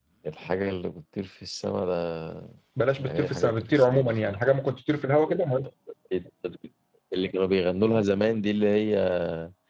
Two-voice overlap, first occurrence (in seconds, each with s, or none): 3.0 s